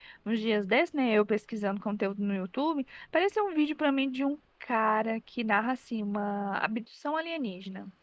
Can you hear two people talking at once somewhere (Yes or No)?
No